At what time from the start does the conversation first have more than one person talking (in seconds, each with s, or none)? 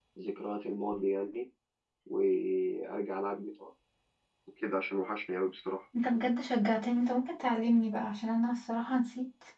none